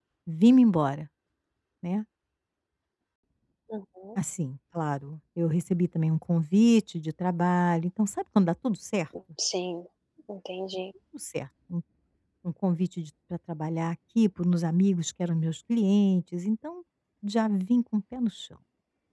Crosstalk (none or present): none